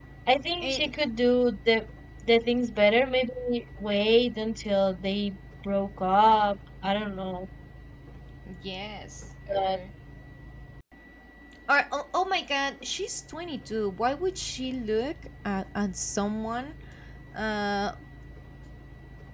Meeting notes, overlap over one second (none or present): none